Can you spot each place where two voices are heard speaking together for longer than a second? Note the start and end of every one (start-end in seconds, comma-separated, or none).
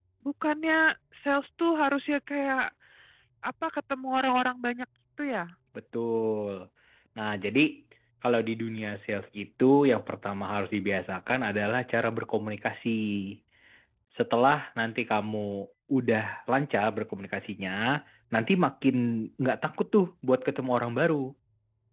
none